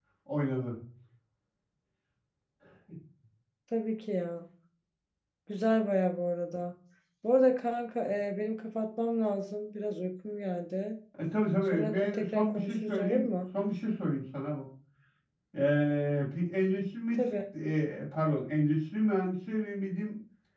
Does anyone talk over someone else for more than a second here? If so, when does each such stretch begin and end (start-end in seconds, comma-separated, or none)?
11.7-13.4